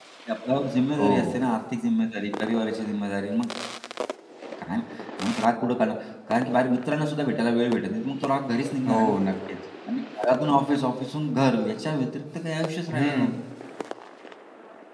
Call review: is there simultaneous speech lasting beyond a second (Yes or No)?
No